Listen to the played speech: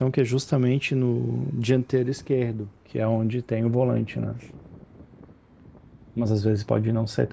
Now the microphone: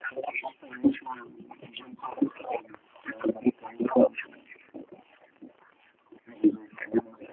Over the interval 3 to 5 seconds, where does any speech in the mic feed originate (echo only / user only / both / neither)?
echo only